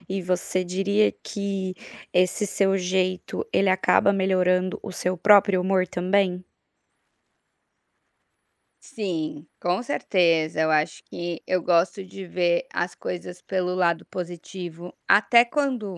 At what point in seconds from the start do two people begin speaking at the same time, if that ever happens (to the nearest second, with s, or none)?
none